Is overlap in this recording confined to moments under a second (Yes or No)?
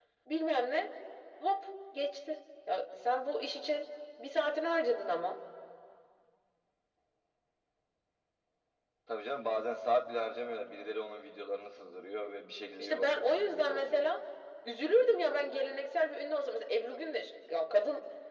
No